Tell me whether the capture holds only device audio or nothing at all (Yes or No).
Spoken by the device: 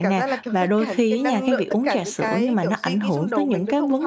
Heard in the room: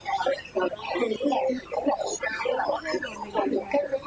No